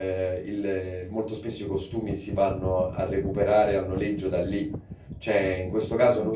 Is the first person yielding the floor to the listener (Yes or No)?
No